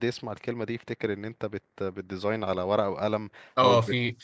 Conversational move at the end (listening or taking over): taking over